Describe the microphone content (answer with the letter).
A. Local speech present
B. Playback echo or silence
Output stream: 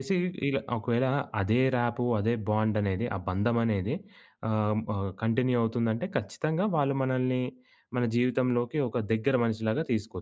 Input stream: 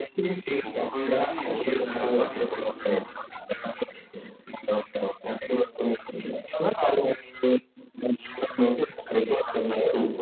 A